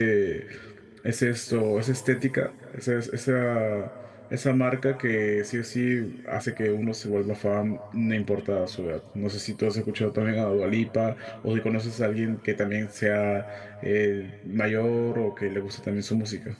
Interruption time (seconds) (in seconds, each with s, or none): none